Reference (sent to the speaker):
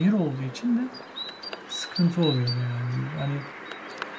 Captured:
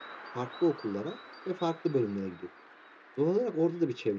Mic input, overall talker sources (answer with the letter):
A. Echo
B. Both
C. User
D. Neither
C